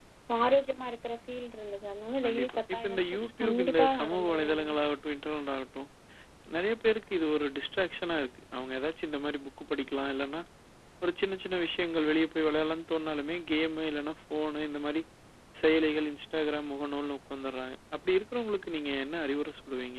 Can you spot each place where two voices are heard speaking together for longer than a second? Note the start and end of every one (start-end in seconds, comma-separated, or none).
2.2-4.8